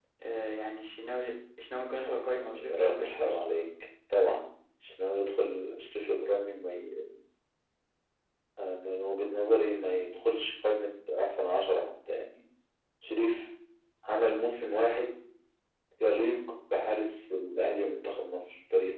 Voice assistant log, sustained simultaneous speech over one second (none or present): present